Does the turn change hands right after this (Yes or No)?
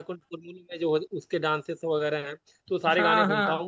No